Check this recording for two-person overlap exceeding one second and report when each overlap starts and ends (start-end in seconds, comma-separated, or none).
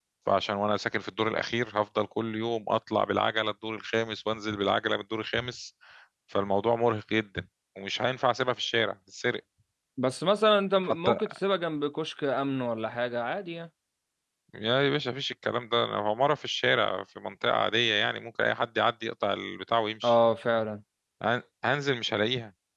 none